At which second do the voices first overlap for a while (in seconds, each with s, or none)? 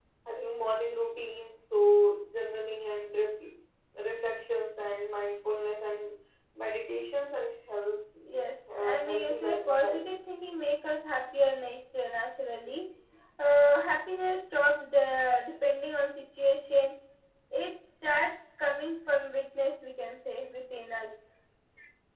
8.7 s